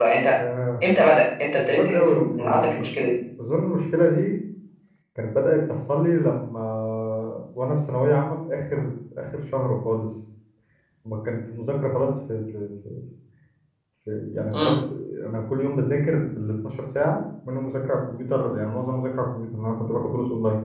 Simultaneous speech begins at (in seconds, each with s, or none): 1.6 s